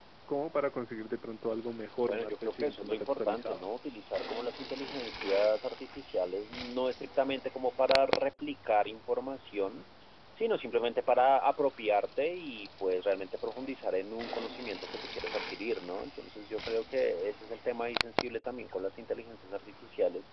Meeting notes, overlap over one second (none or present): present